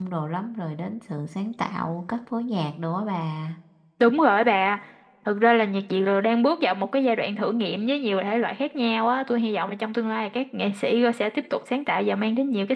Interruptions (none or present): none